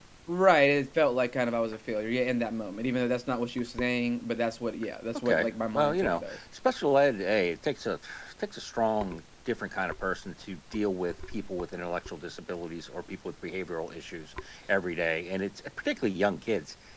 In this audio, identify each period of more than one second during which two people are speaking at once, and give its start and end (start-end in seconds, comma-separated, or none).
5.2-6.4